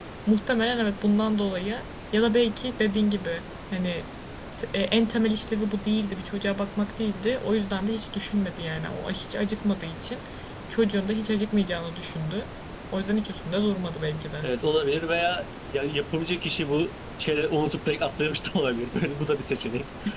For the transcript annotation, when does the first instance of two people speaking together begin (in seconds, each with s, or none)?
none